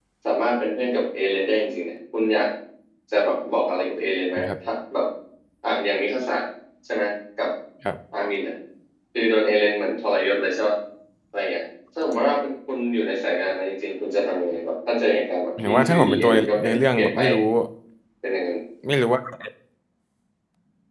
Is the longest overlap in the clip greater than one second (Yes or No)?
Yes